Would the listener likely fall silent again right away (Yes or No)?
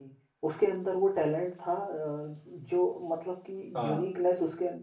Yes